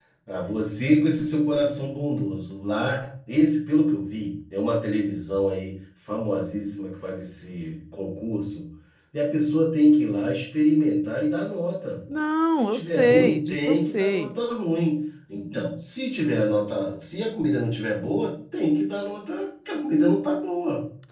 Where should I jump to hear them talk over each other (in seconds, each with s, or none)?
12.5 s